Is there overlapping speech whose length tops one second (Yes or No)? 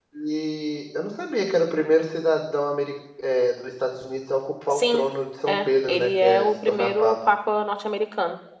Yes